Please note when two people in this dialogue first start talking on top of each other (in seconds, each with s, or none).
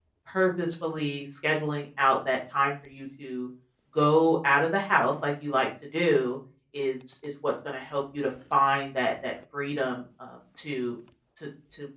none